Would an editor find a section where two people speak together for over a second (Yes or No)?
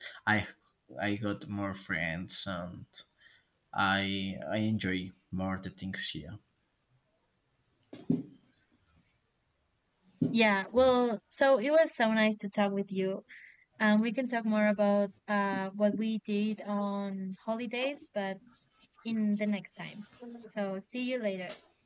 No